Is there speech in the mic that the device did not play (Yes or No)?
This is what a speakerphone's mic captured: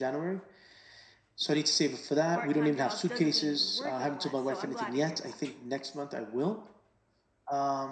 Yes